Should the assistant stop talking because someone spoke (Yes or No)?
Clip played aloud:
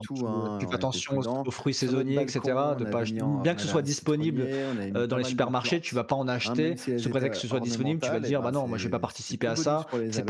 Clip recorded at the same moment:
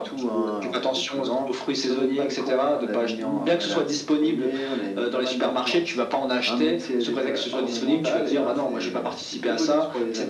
No